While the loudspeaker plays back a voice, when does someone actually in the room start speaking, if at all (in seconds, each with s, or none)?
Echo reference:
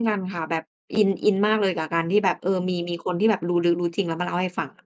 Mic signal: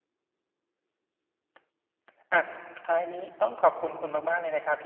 2.3 s